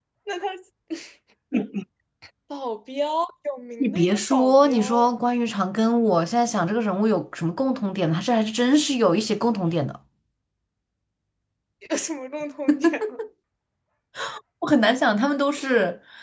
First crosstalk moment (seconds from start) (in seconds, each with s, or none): 3.8 s